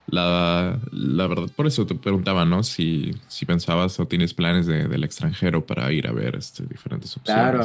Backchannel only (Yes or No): No